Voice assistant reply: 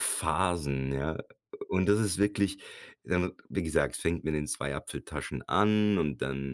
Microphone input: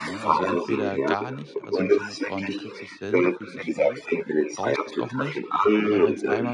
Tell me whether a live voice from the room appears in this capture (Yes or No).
Yes